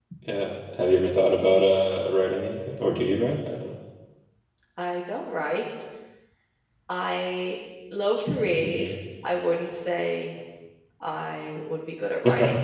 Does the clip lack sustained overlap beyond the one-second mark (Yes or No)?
Yes